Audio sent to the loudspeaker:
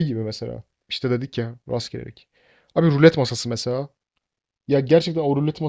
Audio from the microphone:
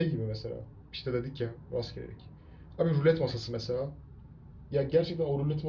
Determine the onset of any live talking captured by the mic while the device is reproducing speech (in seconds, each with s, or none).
none